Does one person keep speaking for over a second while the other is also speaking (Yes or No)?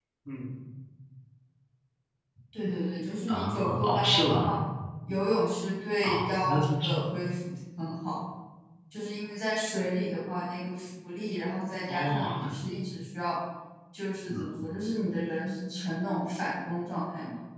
Yes